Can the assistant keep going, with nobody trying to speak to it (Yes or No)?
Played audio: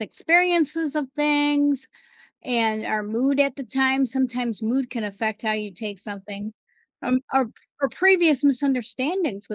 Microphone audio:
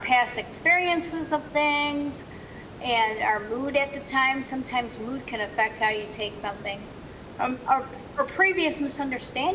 Yes